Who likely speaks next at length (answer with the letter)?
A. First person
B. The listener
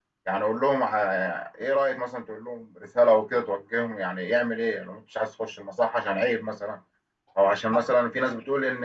A